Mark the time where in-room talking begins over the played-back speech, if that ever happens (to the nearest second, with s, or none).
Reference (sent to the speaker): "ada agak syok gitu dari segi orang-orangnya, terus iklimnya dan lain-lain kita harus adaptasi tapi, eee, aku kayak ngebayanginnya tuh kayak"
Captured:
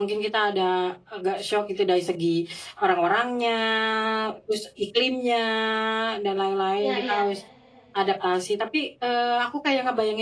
7 s